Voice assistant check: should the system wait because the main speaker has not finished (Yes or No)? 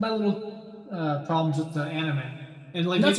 Yes